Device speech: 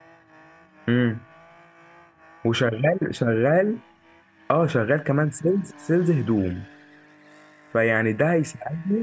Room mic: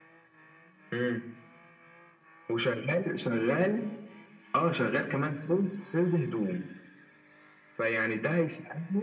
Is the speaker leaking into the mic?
Yes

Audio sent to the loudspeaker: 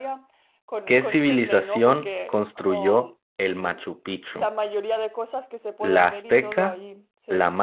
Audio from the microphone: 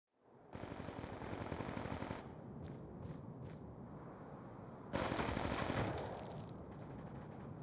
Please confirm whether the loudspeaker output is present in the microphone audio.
No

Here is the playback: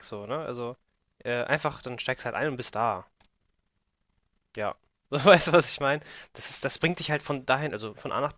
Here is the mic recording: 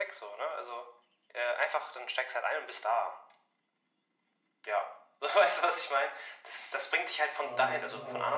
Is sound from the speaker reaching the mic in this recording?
Yes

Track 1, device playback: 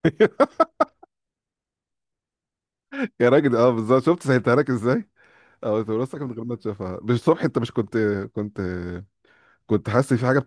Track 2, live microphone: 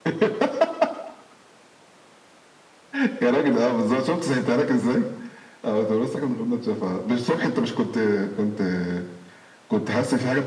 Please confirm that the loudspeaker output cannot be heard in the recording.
No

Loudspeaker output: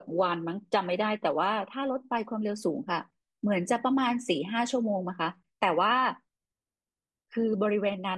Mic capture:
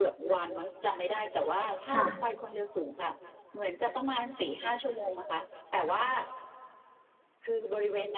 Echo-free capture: No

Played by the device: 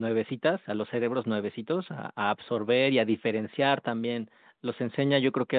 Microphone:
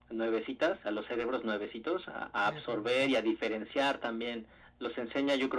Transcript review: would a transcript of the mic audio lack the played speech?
No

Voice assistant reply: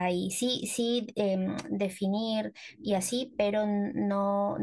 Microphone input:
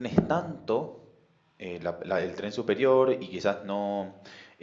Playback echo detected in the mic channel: No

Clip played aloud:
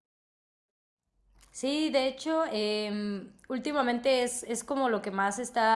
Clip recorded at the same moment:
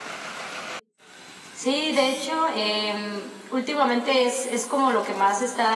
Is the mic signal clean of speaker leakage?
No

